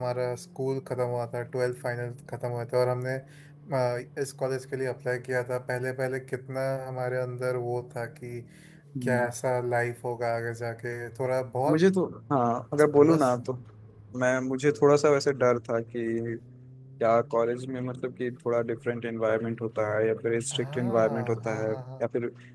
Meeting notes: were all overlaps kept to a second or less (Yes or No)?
No